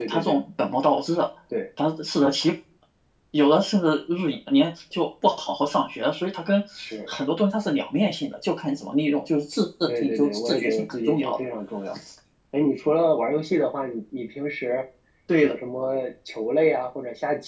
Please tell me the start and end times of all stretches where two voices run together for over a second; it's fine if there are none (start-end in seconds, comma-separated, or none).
10.0-11.4